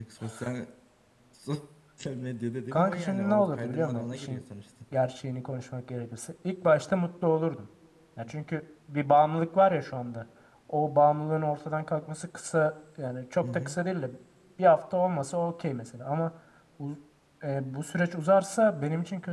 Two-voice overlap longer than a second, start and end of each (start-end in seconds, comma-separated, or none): 2.7-4.4